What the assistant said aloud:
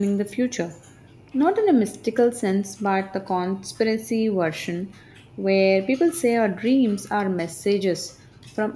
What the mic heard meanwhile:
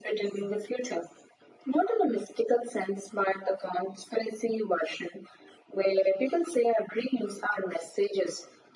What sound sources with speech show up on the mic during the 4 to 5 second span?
echo only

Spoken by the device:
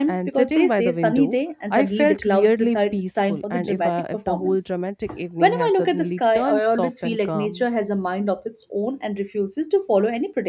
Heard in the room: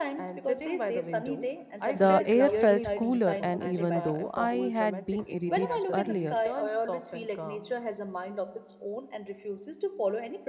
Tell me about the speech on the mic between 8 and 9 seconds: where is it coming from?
echo only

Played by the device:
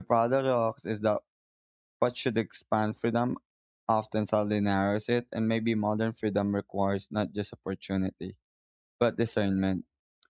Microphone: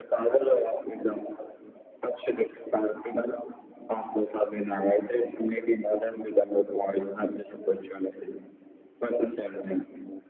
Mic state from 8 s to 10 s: echo only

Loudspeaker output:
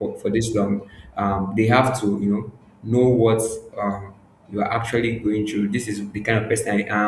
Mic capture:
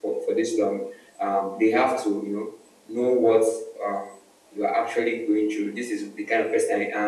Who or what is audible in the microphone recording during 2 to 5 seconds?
echo only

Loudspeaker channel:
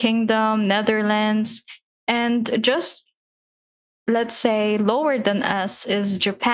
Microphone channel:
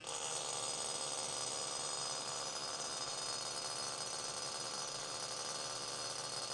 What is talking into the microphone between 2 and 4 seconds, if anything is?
neither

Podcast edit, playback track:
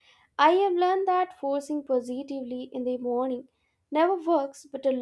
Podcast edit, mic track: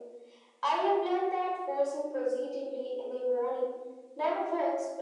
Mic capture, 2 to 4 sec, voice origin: echo only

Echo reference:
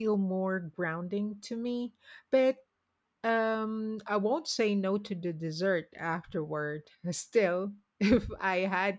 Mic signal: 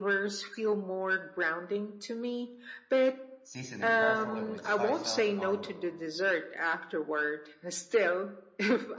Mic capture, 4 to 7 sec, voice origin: both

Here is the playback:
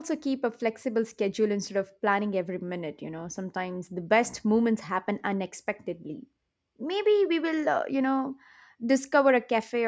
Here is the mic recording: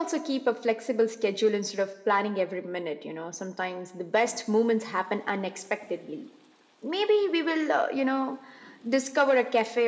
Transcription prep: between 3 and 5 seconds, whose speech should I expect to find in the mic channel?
echo only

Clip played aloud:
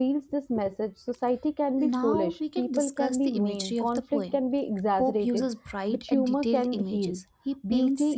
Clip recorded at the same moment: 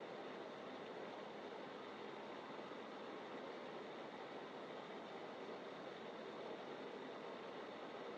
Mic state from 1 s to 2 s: neither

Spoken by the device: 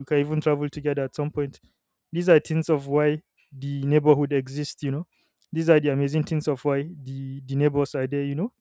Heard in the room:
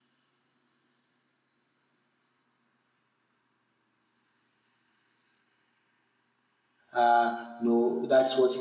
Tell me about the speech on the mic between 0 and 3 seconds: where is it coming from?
neither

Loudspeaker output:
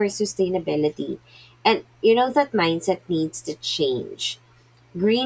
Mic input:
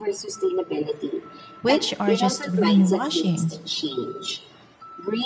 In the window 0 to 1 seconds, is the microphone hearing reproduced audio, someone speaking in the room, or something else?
echo only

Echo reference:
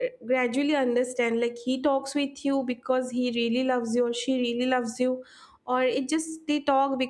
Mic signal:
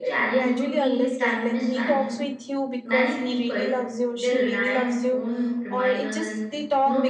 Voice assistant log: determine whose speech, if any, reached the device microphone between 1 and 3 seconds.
both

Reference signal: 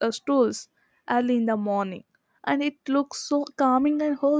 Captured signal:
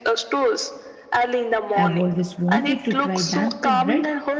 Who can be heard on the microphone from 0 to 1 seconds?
echo only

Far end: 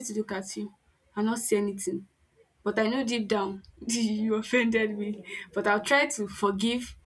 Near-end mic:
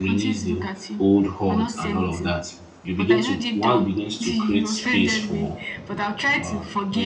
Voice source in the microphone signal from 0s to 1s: both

